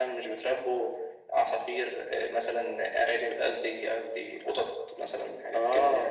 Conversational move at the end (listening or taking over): taking over